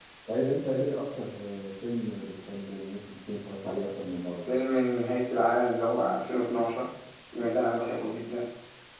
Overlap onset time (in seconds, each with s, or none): none